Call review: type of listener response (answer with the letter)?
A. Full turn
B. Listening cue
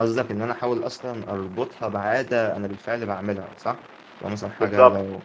B